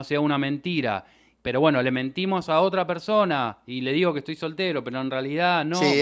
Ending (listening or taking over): taking over